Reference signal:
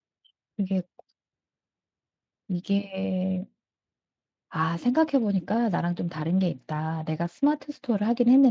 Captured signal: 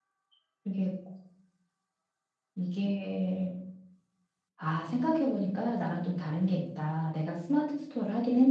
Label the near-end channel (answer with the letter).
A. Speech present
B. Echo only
B